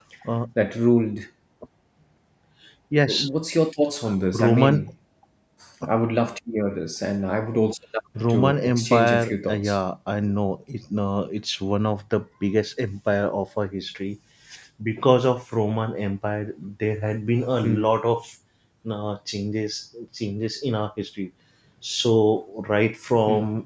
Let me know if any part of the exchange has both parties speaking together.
Yes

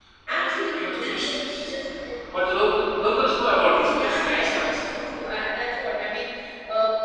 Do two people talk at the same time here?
Yes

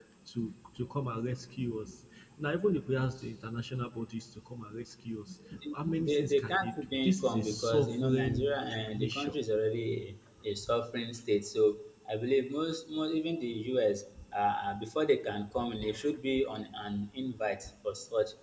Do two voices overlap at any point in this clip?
Yes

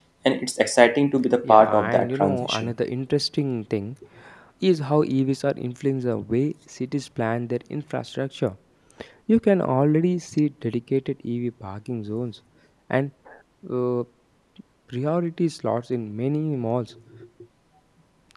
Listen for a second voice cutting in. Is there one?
Yes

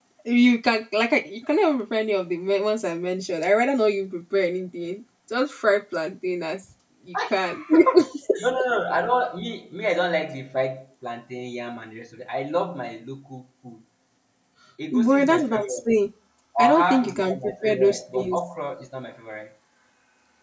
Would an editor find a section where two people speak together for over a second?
Yes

